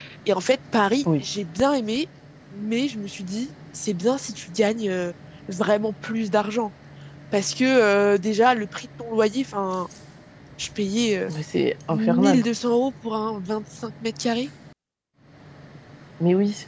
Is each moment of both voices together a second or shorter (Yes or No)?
Yes